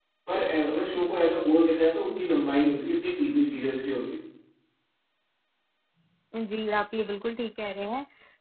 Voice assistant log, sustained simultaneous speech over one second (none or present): none